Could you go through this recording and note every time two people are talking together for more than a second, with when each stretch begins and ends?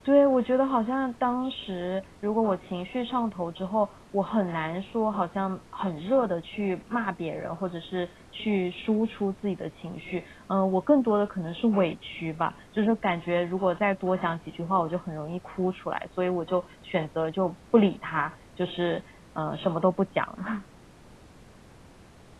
none

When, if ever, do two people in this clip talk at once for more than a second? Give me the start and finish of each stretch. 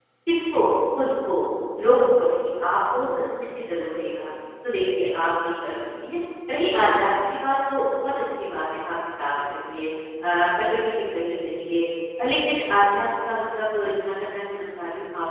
2.9-4.3

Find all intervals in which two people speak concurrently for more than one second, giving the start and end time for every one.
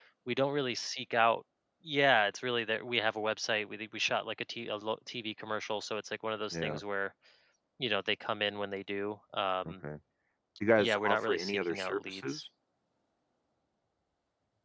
10.8-12.4

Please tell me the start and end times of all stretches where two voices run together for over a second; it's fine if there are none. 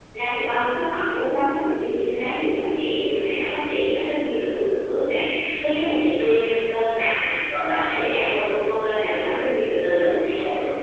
7.7-10.3

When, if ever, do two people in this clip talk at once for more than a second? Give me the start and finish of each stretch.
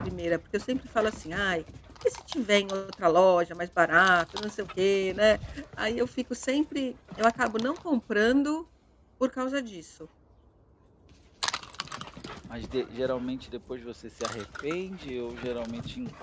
none

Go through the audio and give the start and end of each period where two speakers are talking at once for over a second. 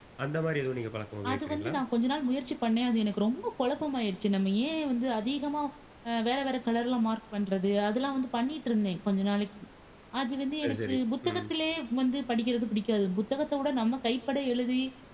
none

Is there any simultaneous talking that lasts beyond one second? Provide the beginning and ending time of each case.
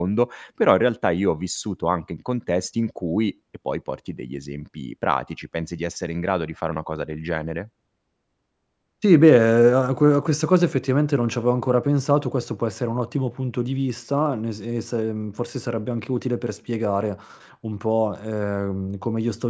none

